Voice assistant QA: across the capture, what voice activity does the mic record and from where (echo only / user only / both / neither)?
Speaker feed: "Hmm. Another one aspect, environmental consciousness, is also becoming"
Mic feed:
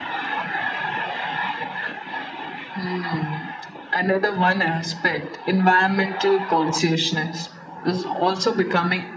echo only